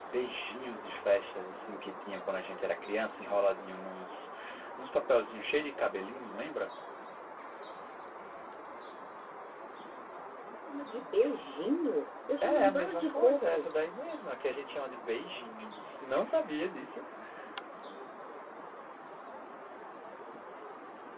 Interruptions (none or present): present